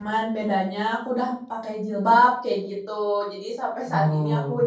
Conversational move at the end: listening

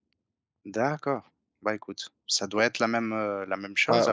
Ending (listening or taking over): taking over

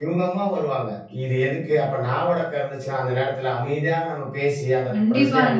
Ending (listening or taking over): listening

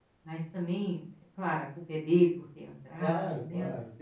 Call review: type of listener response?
taking over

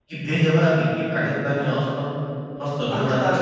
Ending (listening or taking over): listening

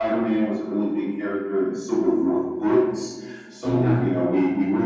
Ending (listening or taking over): listening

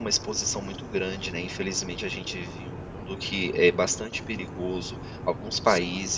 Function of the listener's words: listening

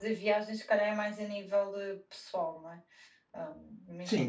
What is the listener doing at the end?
taking over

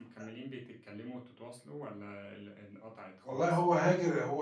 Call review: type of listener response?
taking over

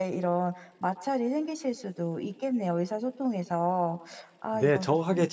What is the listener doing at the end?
taking over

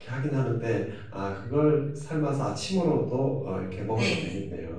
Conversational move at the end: taking over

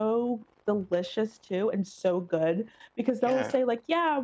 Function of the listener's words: listening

